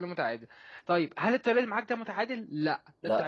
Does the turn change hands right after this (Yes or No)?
No